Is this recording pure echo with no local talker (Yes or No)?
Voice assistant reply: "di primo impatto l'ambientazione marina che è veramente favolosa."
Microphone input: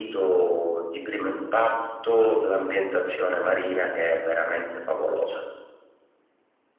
Yes